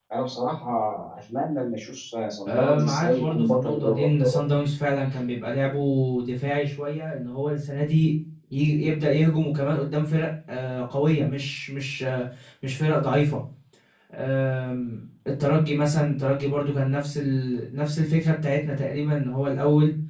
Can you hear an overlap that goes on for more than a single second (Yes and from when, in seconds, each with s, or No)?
Yes, from 2.4 s